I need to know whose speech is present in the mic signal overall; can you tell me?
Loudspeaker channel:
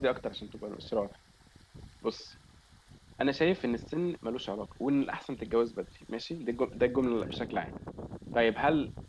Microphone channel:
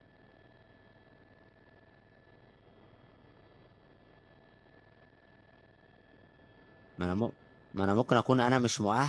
user only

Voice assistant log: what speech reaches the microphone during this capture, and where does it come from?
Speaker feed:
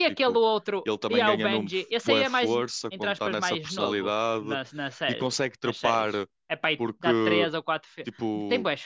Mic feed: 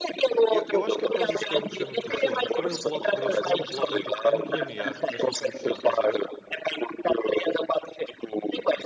both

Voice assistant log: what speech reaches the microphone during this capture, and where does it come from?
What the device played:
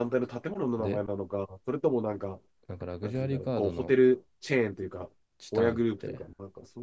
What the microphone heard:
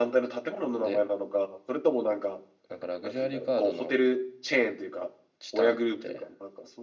echo only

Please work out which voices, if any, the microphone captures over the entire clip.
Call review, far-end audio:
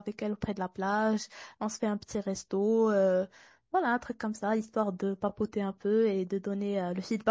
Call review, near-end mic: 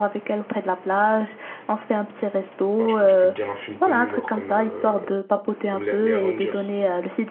both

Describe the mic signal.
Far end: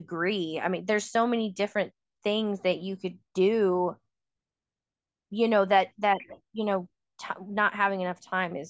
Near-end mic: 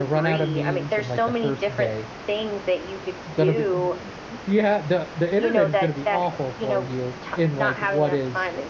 both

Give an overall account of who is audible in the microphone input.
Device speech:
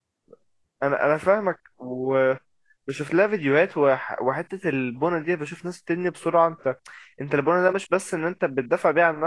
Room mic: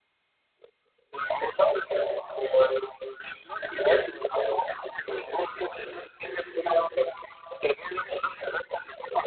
echo only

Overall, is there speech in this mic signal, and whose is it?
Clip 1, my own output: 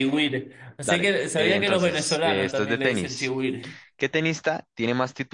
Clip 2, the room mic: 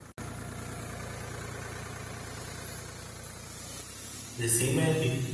user only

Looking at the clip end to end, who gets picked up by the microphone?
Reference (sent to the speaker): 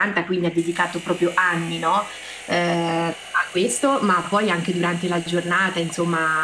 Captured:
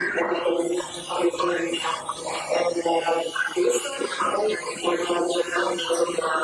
echo only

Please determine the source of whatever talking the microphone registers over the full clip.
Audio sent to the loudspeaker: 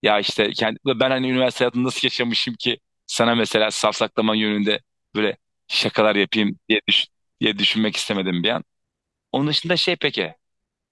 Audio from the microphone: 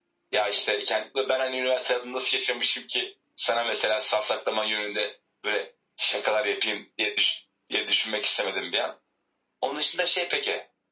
echo only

